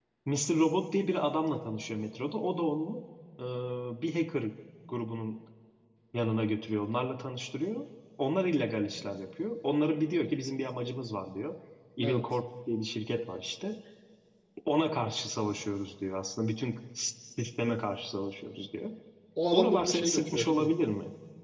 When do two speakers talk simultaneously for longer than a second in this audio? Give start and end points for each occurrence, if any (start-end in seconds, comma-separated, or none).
19.5-20.7